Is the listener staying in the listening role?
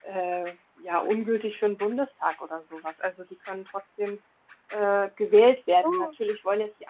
Yes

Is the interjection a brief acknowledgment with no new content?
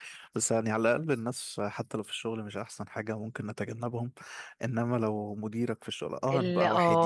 Yes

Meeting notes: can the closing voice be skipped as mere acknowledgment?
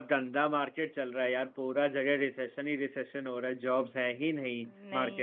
Yes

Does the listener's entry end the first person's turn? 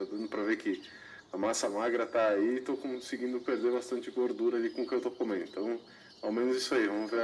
No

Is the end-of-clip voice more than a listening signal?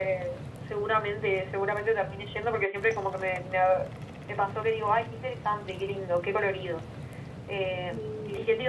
No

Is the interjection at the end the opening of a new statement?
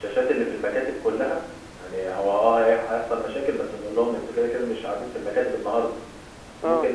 No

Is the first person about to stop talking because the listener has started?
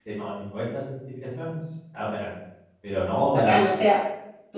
Yes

